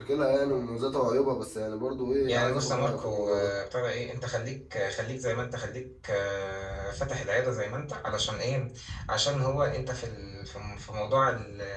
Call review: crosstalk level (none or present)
present